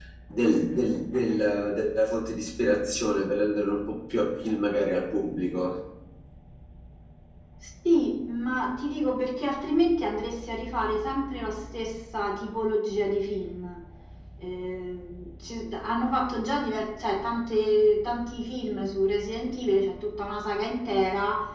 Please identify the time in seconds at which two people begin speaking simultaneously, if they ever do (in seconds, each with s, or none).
none